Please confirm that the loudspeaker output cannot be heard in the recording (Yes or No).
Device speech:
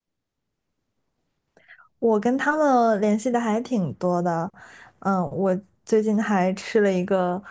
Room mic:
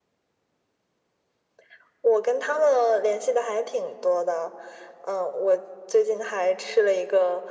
No